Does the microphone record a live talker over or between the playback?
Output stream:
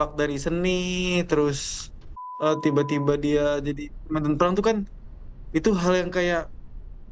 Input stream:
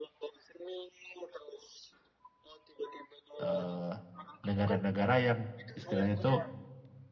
Yes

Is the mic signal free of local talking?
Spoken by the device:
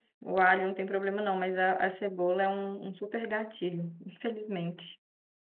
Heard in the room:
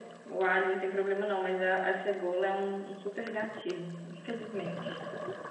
Yes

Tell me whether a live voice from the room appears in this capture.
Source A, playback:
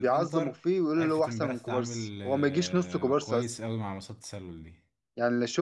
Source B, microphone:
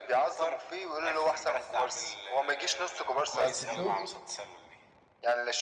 Yes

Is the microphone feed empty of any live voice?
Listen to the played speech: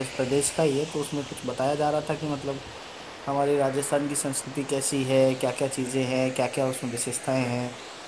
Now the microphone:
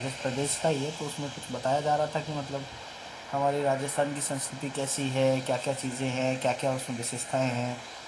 Yes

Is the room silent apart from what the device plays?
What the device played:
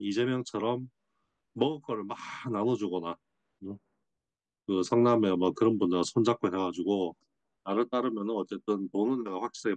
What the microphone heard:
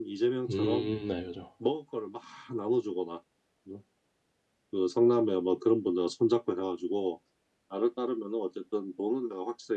No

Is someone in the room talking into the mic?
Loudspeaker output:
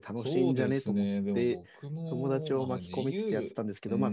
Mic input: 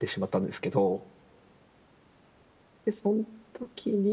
Yes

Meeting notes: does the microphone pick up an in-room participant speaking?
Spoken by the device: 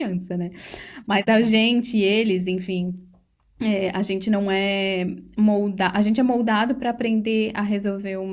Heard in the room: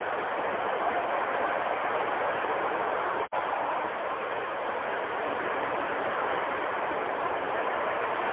No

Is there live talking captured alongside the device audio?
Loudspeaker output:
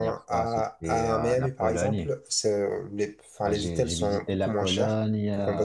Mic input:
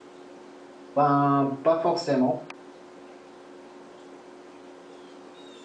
Yes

